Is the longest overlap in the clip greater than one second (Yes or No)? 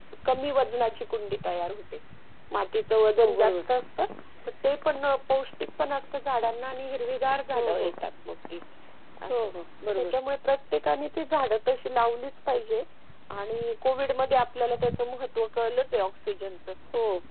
No